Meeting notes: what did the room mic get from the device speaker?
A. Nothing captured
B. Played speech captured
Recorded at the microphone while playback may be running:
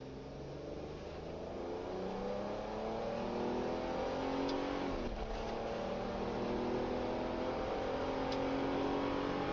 A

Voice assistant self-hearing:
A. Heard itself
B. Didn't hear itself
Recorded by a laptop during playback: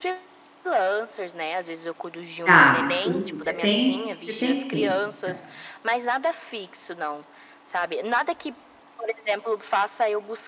A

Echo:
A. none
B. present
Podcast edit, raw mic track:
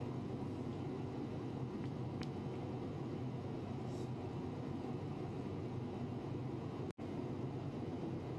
A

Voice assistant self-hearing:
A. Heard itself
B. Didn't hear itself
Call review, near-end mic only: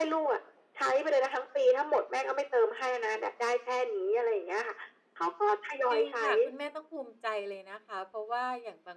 A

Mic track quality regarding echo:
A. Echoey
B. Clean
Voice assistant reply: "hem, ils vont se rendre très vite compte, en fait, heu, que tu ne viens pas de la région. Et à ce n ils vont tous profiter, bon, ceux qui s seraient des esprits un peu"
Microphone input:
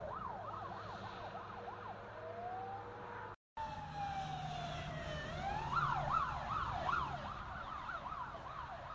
B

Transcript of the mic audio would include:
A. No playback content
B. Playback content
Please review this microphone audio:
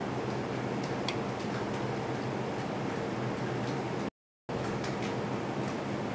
A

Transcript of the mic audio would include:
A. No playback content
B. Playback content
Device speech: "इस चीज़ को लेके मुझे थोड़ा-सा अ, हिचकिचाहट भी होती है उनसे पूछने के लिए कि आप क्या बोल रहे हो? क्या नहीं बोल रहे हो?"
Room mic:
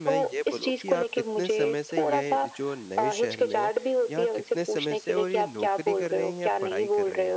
B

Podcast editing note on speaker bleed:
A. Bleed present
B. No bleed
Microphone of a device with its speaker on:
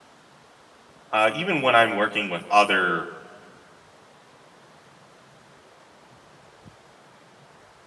B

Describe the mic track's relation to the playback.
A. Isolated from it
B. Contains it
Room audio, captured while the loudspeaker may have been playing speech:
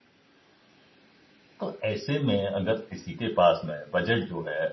A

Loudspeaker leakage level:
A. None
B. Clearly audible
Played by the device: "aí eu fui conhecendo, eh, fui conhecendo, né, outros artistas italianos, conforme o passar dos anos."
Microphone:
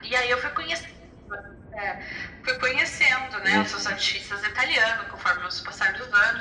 B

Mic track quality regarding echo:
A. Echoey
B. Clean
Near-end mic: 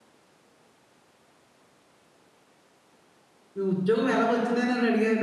B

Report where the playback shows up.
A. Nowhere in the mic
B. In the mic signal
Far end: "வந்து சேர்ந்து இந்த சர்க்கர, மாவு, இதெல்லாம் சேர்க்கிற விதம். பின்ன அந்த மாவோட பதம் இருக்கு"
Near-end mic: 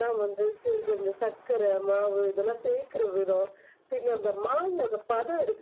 B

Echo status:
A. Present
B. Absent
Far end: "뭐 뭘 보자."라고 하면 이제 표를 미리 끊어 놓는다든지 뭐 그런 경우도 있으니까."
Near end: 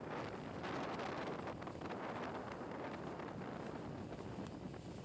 B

